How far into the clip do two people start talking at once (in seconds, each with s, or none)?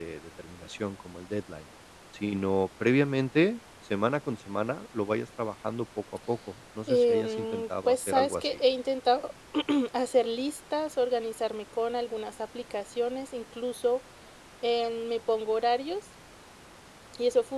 6.9 s